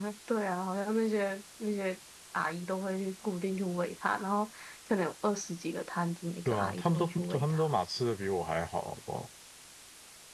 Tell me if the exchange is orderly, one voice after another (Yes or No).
No